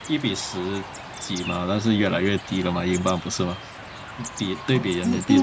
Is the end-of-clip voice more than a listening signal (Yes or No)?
Yes